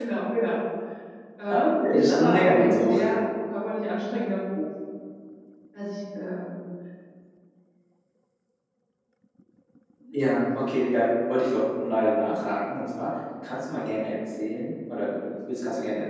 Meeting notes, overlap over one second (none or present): present